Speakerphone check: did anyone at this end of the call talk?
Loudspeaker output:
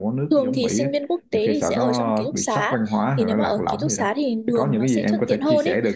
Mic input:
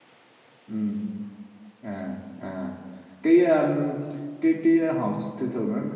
Yes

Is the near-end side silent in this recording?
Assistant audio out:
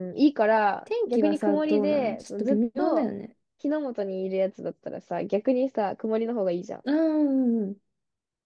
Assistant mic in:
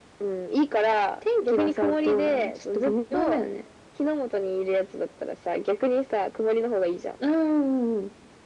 Yes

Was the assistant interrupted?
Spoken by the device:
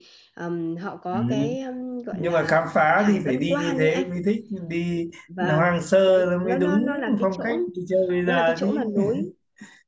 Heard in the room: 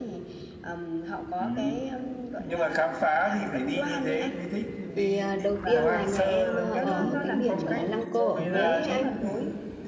Yes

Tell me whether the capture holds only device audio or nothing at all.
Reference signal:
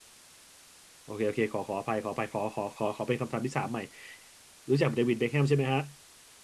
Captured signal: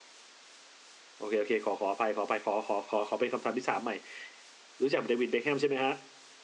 Yes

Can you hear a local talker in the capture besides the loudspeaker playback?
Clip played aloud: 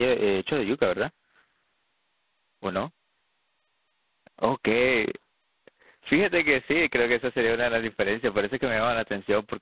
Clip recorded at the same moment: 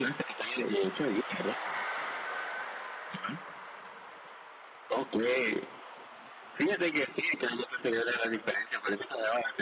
No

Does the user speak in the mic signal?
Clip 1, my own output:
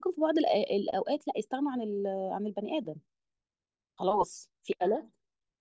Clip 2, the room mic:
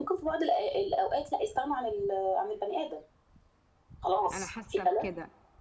Yes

